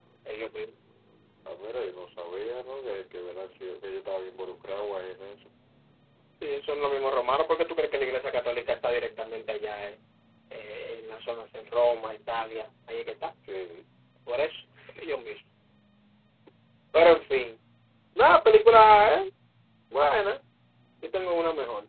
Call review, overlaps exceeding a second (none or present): none